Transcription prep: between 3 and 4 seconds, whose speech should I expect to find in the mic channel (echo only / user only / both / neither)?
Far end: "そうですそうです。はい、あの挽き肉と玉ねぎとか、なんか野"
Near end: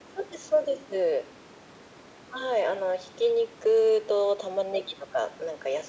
echo only